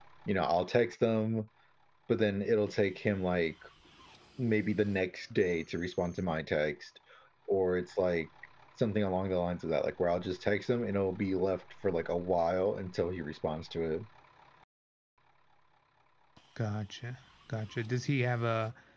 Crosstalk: none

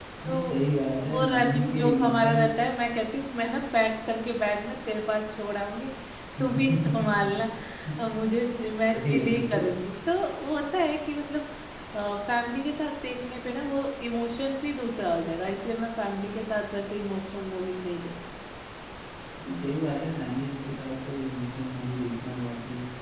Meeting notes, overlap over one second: present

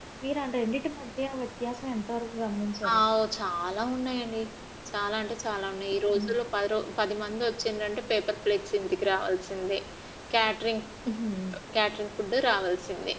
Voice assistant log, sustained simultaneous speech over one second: none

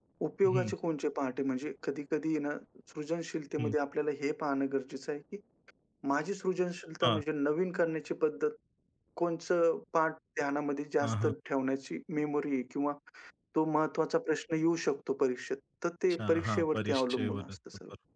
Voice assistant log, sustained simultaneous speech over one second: present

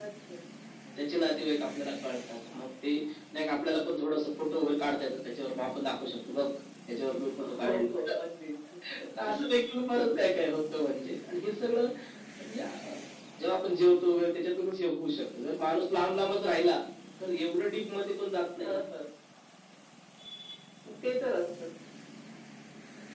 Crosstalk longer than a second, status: none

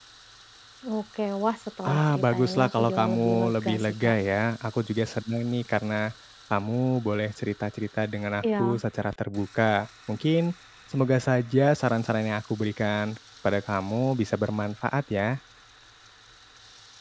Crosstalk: present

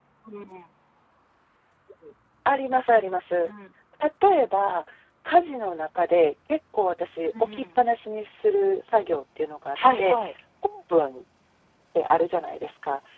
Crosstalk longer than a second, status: none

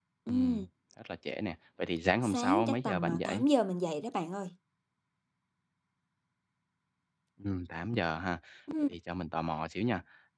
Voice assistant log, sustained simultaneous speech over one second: present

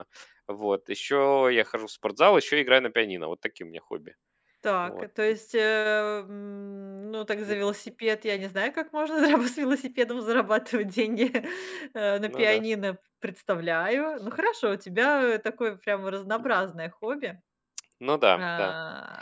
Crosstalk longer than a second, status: none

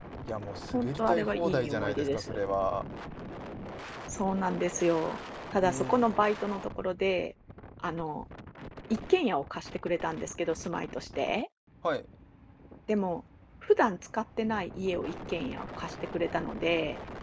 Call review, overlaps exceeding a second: present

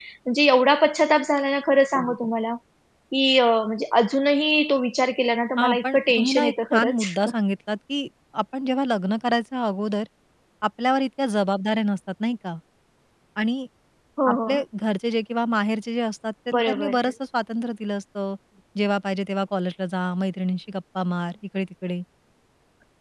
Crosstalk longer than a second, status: present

